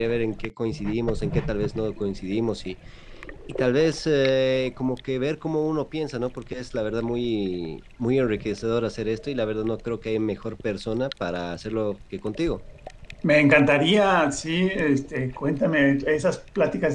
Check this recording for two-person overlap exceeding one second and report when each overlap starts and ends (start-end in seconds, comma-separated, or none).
none